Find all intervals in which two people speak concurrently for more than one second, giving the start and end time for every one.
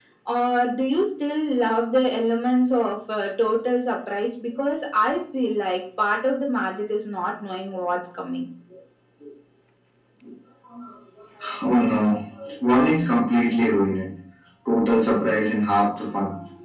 none

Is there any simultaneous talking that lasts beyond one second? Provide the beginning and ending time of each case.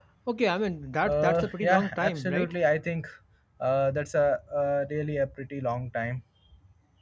1.0-2.5

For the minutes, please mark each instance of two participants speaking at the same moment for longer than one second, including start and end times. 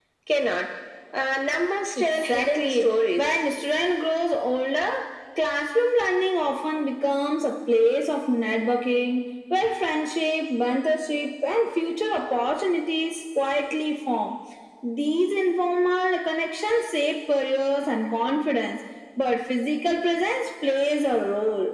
2.0-3.4

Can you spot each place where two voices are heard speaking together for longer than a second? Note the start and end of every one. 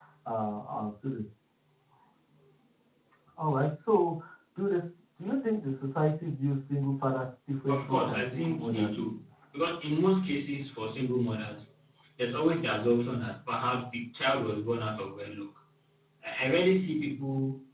7.7-8.9

